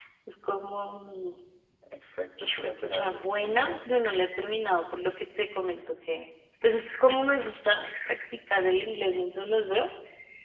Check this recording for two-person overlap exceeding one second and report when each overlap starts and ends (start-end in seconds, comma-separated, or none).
2.6-3.9